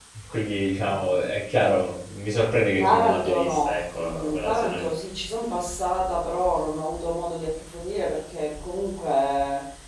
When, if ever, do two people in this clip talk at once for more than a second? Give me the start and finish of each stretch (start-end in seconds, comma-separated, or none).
2.8-4.9